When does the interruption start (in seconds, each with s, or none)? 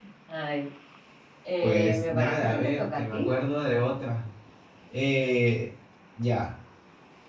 1.6 s